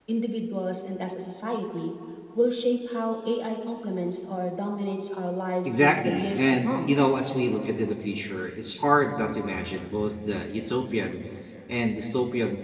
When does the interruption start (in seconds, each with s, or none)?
5.6 s